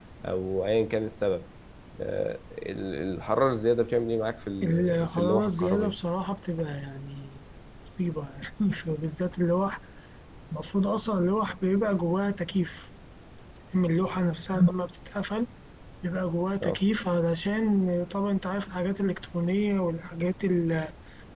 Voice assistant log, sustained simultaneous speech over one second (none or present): present